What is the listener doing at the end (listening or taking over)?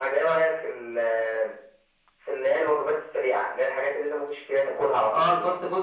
taking over